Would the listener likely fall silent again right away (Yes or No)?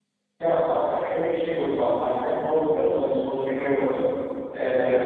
Yes